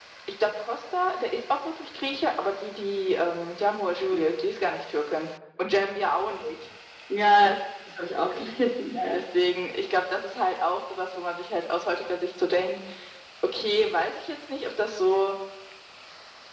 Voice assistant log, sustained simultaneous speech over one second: none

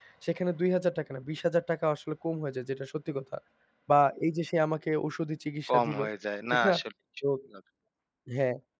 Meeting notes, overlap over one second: none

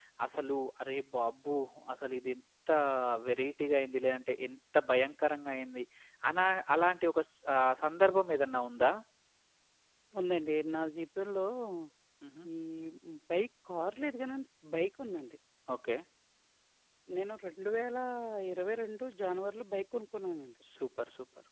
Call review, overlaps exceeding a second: none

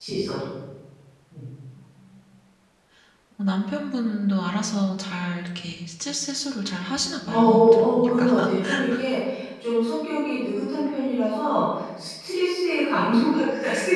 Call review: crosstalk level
present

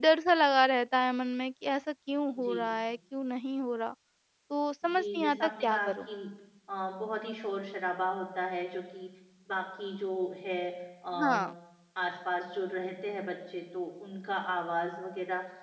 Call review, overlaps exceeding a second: present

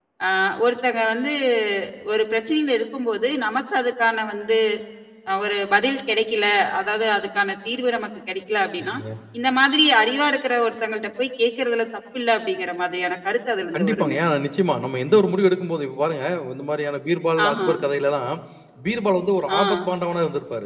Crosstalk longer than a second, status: none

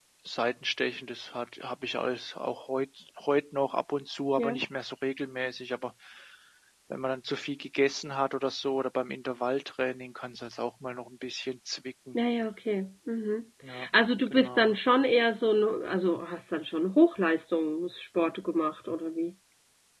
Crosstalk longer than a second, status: none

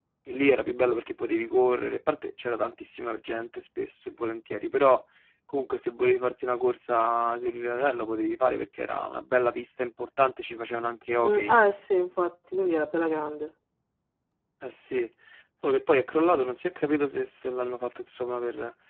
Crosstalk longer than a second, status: none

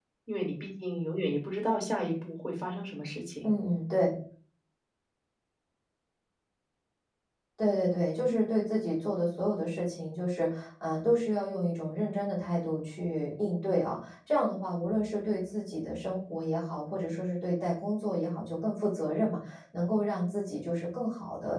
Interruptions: none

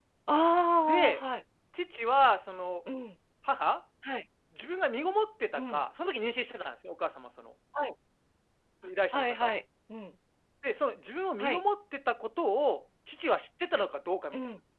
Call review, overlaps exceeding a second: none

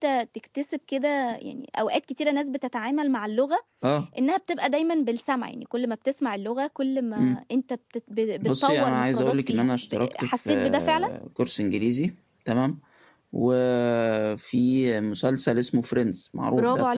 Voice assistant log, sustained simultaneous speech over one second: present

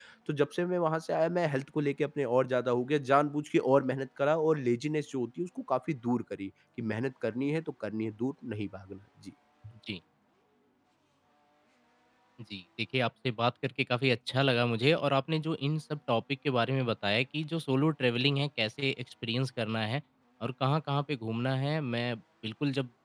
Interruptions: none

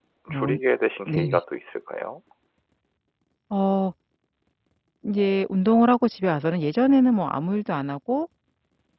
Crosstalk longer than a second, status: none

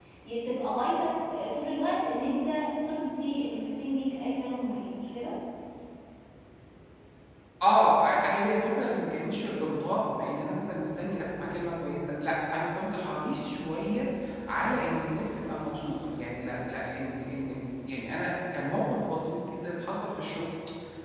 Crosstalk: none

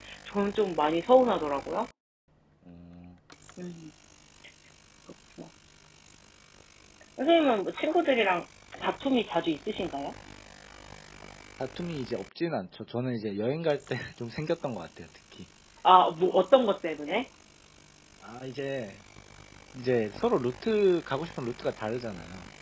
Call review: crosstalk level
none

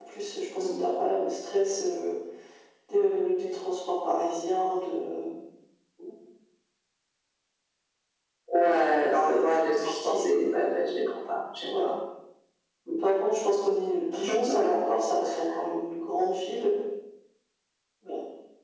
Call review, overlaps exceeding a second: present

